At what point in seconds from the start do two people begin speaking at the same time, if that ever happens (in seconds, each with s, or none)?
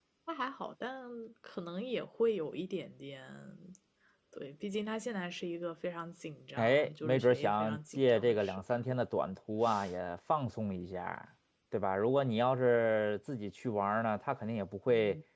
6.6 s